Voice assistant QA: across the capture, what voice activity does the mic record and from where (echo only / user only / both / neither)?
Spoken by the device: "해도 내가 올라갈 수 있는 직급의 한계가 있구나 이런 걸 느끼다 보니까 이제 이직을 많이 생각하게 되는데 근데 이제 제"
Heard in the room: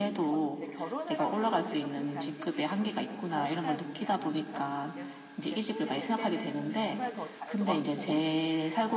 both